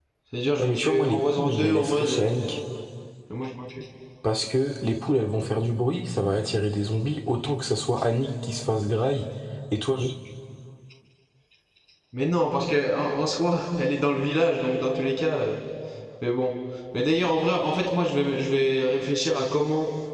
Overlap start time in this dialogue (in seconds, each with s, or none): 0.6 s